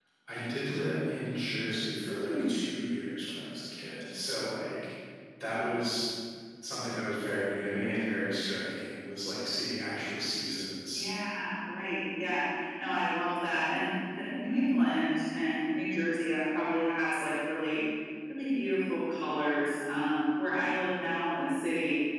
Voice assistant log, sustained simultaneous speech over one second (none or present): none